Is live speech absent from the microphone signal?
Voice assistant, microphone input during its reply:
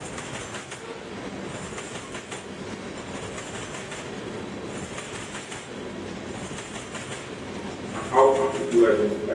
No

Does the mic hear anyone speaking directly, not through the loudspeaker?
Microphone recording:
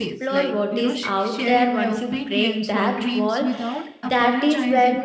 Yes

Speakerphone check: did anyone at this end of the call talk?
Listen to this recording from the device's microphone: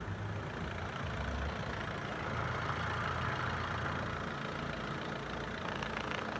No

